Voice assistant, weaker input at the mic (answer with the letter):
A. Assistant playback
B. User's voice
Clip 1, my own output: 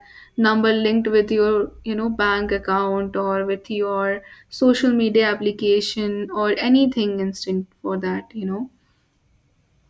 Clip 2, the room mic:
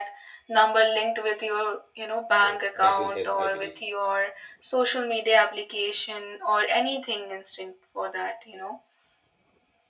B